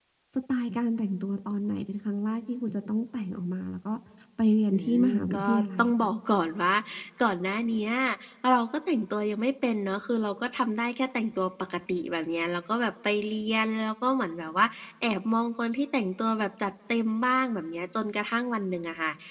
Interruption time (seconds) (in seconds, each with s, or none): 4.8 s